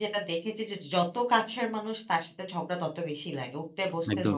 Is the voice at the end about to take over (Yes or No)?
Yes